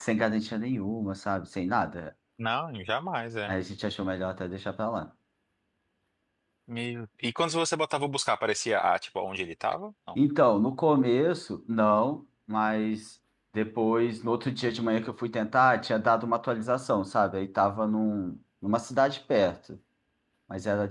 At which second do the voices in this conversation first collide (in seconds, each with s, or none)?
none